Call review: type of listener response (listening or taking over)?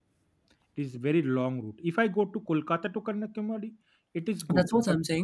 taking over